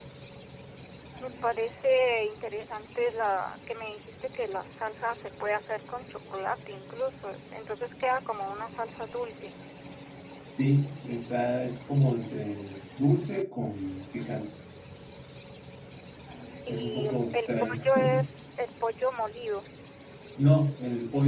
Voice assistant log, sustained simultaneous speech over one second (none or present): present